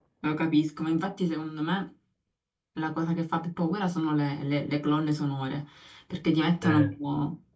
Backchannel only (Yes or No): Yes